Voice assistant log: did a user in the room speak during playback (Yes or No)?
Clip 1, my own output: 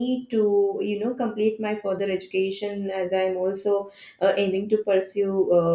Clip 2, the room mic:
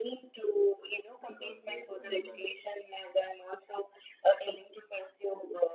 Yes